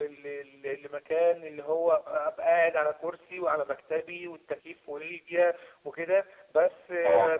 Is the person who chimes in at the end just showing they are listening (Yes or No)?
Yes